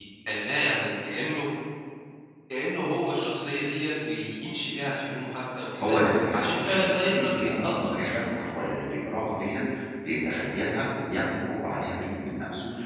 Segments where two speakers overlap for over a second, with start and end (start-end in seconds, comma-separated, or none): 6.4-7.9